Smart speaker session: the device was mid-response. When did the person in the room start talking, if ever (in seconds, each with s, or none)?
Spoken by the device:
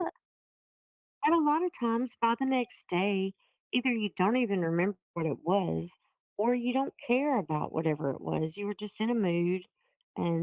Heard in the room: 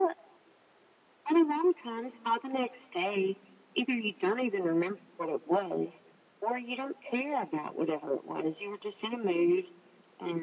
none